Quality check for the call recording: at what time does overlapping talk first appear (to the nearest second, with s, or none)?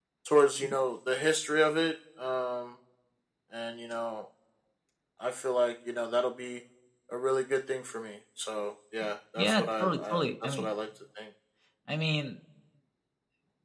9 s